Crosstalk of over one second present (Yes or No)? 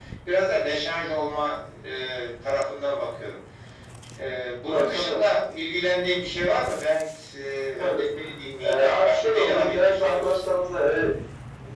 Yes